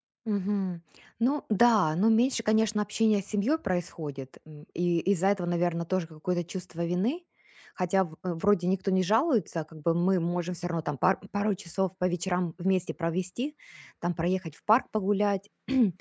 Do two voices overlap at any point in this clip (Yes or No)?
No